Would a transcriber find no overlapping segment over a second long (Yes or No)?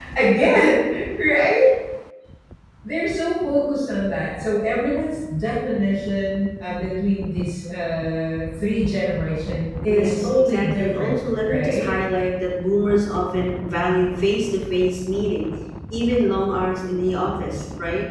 No